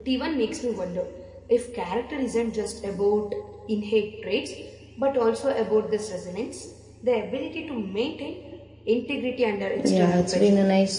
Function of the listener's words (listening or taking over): taking over